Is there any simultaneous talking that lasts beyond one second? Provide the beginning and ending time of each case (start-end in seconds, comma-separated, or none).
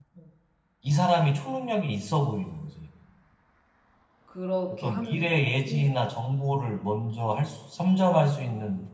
4.7-5.9